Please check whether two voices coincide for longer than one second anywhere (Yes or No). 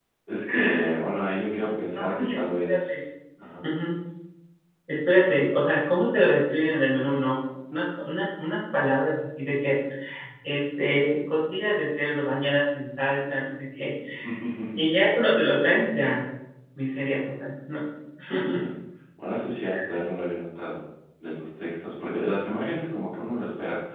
Yes